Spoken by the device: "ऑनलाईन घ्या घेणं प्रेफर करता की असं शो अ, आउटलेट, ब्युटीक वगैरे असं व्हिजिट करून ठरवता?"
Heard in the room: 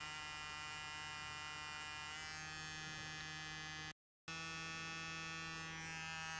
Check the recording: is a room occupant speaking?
No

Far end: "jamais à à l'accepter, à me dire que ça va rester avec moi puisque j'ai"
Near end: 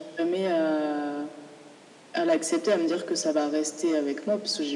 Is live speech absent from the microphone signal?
Yes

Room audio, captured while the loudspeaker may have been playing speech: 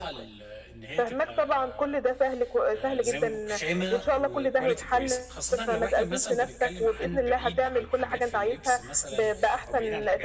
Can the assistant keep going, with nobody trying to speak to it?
No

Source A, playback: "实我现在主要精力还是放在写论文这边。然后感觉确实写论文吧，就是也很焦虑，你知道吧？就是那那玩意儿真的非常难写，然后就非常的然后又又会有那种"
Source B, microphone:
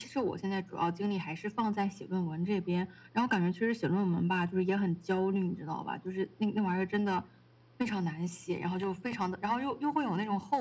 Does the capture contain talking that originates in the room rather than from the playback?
No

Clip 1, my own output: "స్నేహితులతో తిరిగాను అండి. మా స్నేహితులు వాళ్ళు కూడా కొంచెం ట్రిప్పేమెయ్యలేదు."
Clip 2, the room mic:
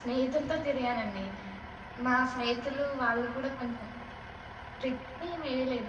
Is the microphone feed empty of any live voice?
Yes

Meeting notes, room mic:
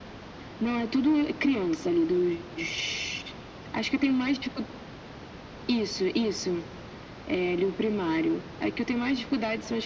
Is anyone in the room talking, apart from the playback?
No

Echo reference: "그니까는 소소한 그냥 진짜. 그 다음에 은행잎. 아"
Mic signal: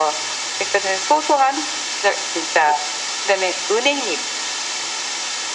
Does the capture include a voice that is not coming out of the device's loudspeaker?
No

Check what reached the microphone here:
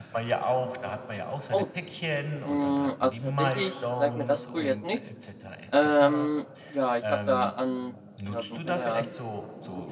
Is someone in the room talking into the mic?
Yes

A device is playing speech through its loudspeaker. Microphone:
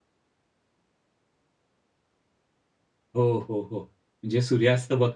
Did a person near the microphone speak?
Yes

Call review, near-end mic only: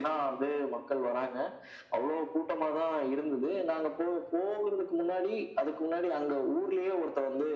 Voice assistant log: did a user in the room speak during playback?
No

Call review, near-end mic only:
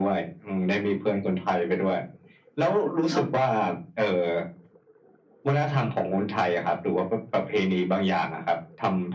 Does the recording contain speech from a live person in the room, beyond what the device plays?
Yes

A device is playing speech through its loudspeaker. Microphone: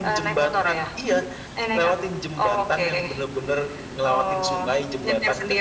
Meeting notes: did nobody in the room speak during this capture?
Yes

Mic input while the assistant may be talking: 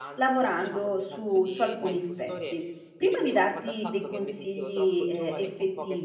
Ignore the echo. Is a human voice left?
Yes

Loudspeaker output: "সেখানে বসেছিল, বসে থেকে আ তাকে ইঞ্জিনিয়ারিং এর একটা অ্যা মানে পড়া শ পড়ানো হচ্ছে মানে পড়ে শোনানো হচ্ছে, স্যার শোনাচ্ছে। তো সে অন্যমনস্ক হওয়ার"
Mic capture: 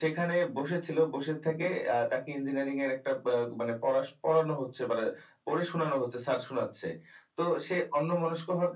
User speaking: No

